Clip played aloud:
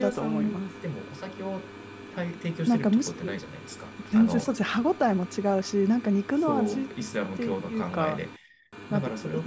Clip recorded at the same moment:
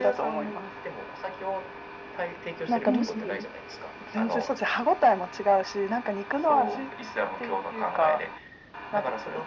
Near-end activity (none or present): present